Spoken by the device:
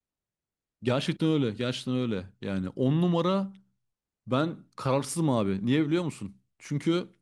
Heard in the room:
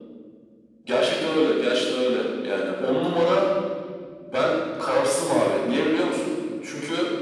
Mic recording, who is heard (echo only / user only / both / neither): echo only